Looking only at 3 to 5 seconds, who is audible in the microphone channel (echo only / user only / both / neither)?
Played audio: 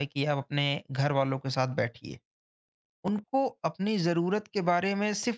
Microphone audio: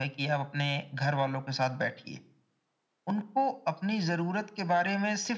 echo only